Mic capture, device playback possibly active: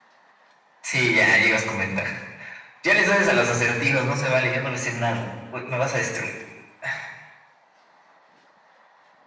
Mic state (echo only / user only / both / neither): echo only